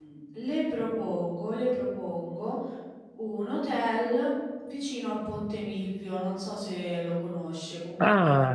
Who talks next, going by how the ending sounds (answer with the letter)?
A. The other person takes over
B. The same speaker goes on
A